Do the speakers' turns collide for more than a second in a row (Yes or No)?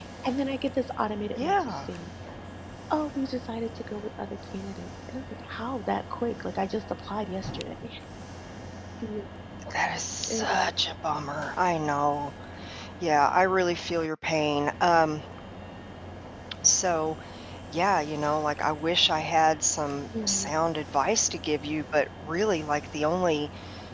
No